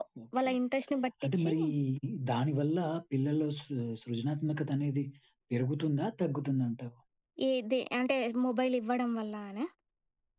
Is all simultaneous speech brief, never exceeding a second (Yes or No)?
Yes